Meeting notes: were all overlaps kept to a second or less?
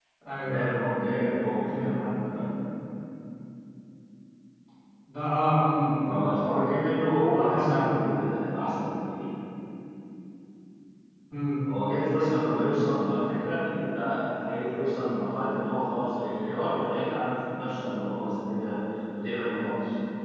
Yes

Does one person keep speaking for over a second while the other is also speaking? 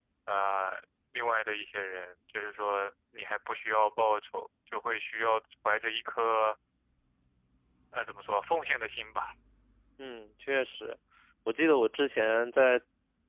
No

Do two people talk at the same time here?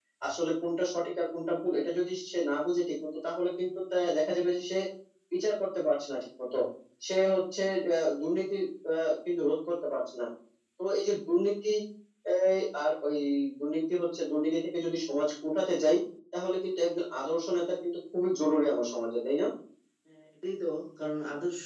No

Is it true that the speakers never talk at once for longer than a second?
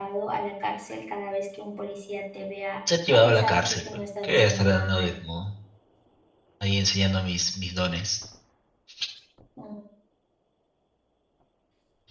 No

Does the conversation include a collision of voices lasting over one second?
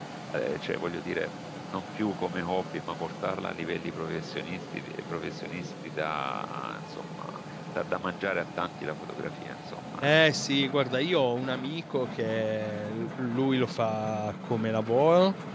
No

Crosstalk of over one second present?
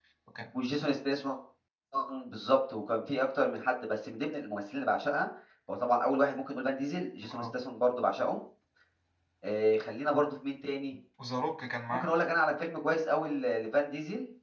No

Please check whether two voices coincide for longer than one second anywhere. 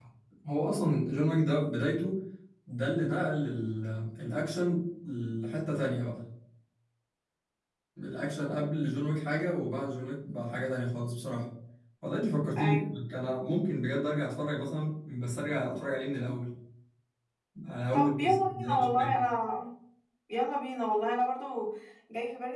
Yes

